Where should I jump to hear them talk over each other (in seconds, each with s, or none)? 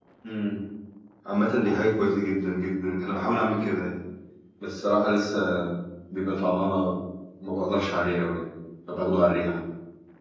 none